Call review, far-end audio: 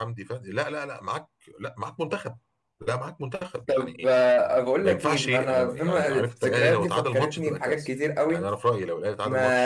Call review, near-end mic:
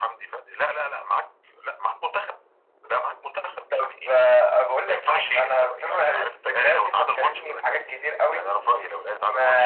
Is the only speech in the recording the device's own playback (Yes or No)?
Yes